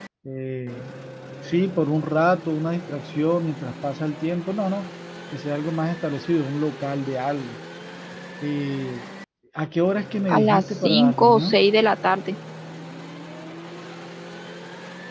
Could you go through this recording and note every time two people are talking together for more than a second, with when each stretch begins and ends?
10.3-11.6

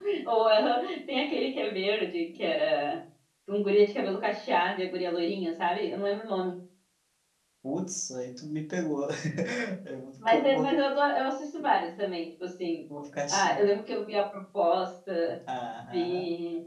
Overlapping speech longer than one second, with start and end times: none

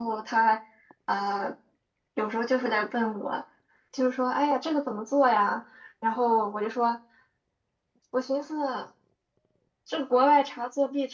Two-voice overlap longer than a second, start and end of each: none

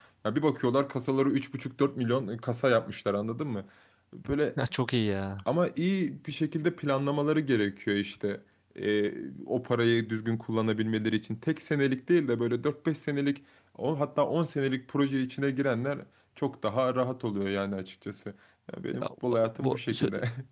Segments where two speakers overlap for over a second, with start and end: none

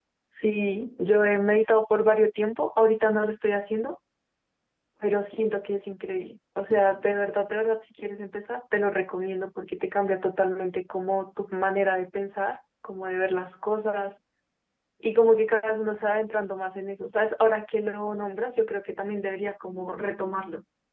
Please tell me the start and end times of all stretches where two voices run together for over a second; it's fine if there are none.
none

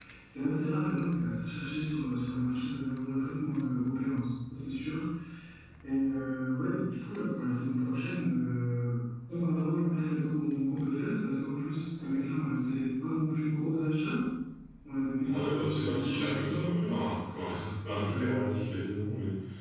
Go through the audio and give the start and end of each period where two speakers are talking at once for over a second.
15.2-16.9

